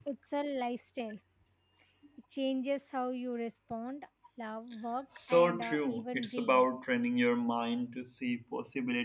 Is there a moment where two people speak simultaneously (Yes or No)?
Yes